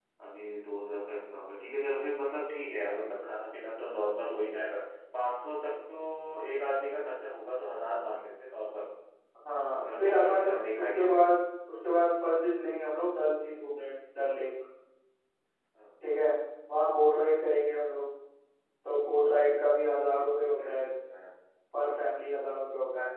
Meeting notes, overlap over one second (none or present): present